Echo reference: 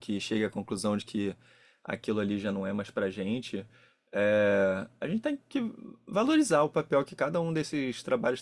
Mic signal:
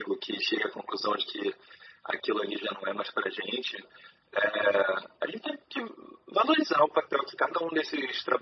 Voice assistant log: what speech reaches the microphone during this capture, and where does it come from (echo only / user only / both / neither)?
echo only